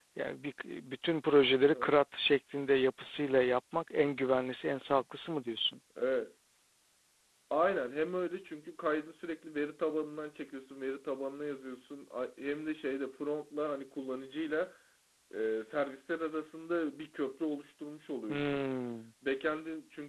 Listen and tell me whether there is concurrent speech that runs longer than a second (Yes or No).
No